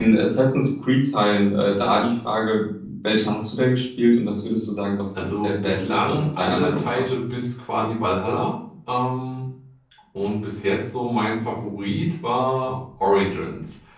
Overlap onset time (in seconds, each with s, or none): 5.2 s